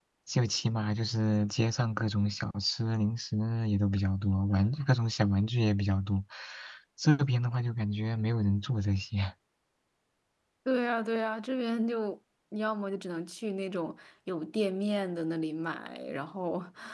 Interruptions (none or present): none